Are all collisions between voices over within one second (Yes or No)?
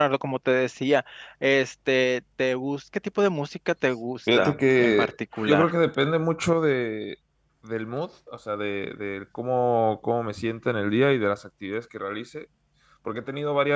No